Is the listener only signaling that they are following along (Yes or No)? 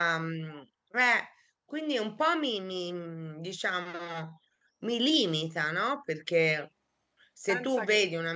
Yes